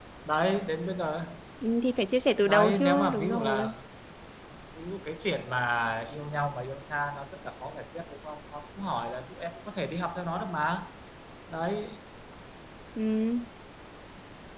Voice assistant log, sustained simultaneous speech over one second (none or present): present